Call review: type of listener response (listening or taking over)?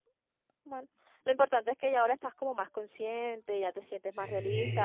listening